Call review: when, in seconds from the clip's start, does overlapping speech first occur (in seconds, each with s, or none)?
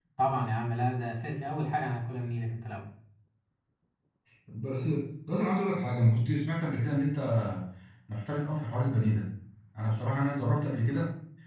none